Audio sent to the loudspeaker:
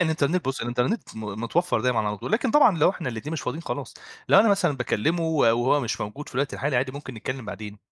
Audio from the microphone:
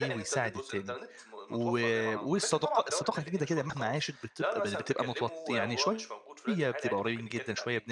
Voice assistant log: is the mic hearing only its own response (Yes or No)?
No